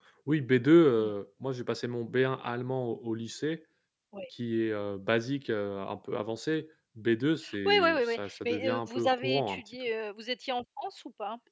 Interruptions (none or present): present